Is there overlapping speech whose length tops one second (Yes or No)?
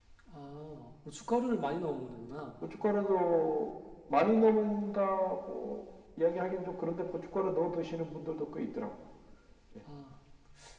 No